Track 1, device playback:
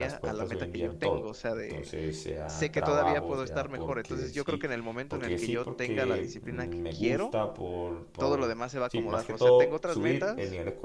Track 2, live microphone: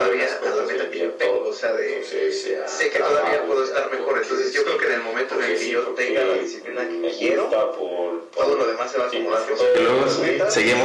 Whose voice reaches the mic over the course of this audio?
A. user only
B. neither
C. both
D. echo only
C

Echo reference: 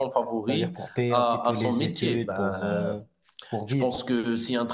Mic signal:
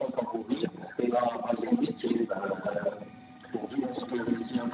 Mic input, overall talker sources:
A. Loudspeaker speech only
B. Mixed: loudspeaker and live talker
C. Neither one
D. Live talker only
A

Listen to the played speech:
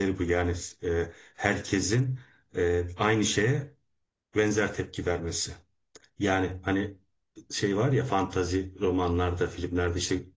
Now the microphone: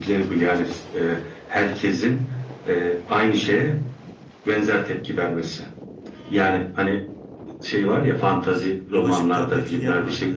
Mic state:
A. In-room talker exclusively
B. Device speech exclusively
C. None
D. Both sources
D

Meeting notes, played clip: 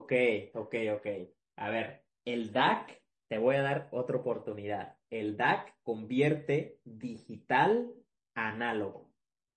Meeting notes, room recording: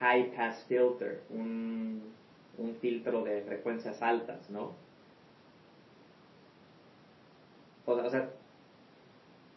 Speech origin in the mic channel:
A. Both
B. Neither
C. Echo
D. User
D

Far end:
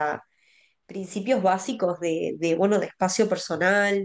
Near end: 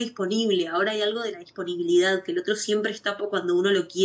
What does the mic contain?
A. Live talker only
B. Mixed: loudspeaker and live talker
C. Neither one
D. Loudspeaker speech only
A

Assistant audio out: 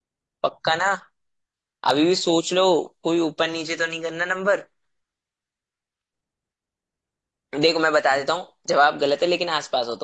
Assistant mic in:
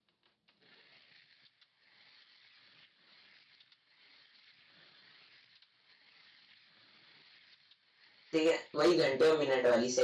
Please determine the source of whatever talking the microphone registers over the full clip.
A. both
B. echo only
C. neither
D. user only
D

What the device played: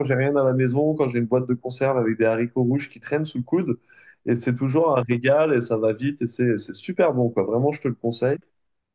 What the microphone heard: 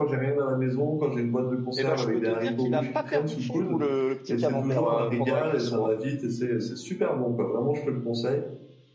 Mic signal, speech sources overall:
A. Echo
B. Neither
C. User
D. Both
D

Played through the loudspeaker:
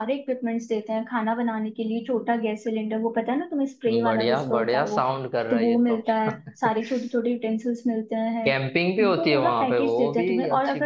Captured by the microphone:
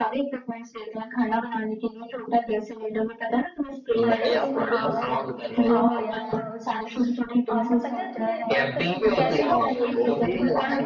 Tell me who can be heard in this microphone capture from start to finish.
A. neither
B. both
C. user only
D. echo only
B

